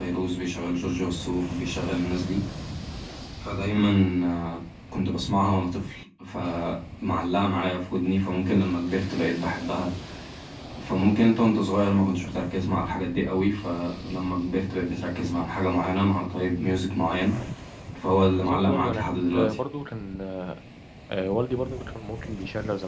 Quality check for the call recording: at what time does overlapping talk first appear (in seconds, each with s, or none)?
18.4 s